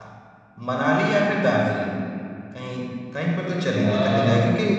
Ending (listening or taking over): listening